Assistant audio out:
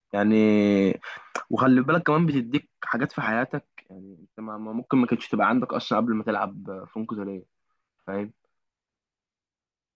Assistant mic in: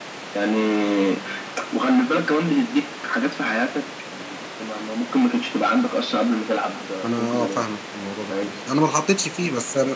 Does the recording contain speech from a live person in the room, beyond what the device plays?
Yes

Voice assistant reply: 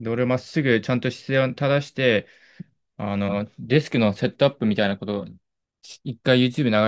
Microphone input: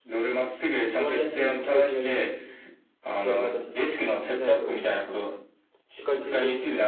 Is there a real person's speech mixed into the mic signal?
Yes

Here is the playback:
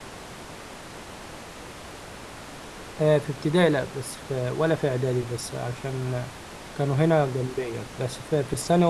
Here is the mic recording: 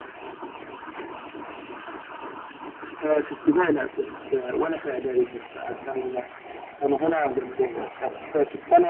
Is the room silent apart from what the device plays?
Yes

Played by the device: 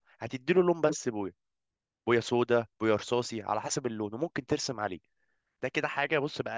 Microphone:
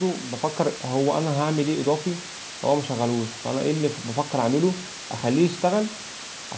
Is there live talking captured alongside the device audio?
Yes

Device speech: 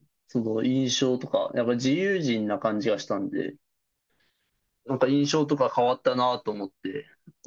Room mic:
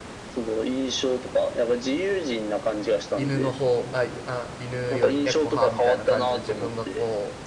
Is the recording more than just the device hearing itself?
Yes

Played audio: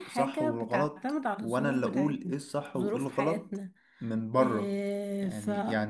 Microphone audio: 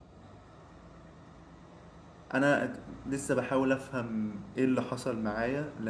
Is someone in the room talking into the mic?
Yes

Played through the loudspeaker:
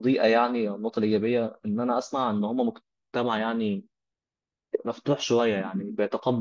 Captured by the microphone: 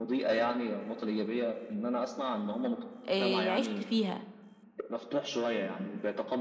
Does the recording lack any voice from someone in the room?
No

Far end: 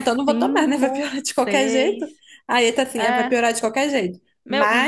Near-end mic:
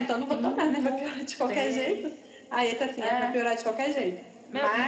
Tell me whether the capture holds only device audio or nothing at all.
Yes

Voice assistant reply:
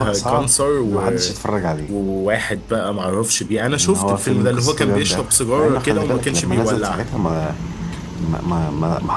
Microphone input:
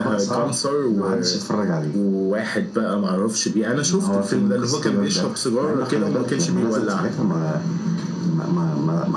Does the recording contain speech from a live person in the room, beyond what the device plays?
No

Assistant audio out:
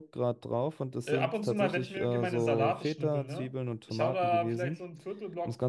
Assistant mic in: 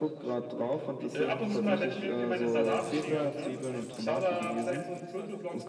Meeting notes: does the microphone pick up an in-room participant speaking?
Yes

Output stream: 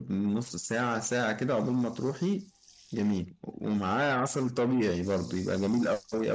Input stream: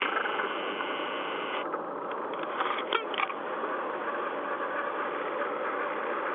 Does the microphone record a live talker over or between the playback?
No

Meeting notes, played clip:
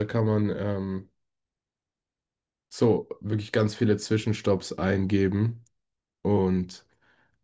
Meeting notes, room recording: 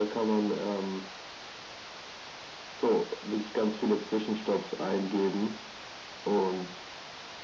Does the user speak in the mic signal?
No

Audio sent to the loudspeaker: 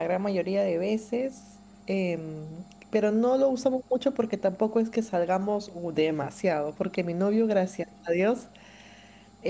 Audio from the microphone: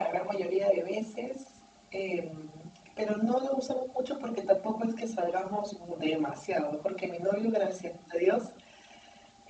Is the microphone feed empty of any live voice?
Yes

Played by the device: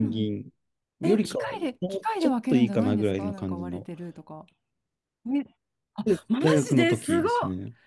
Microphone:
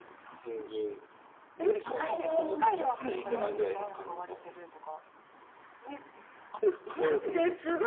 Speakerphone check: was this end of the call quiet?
No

